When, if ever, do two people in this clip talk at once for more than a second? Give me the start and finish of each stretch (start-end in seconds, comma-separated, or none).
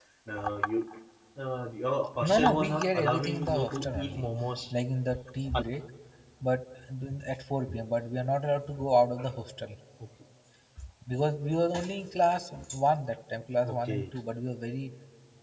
2.2-4.3